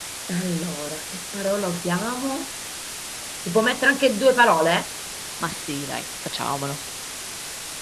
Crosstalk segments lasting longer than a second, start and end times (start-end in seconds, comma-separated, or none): none